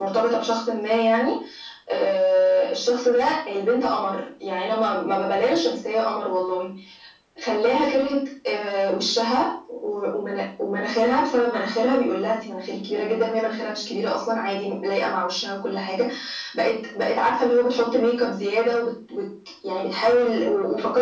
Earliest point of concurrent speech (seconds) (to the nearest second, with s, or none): none